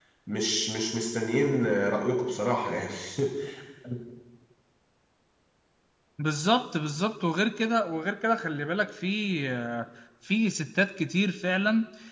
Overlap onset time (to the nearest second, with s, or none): none